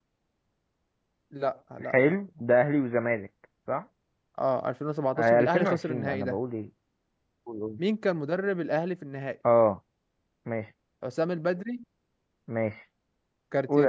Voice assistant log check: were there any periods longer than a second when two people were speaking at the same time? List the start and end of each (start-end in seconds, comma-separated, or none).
5.2-6.4